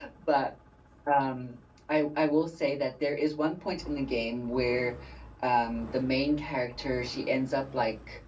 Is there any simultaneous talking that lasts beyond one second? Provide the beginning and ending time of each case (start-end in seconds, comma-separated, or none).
none